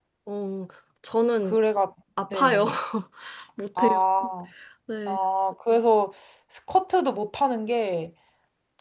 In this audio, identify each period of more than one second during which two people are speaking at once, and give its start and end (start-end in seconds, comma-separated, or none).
none